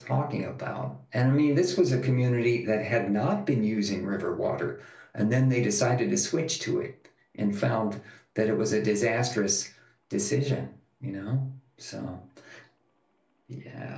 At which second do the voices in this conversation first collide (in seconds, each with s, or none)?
none